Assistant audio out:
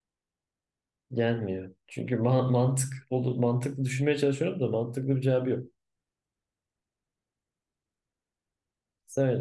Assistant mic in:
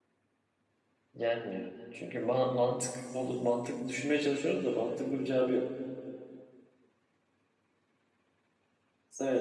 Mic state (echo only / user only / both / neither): echo only